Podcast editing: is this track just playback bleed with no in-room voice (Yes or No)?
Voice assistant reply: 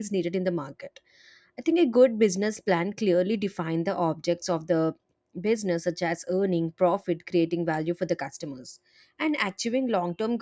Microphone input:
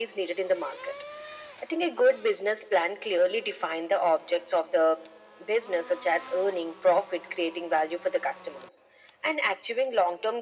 Yes